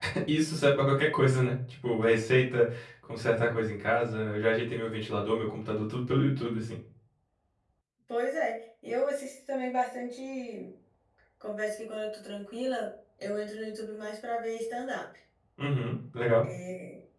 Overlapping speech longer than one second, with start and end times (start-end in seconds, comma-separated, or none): none